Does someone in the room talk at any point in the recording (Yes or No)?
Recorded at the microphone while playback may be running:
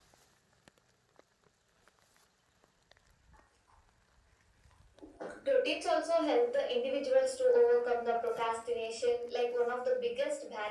No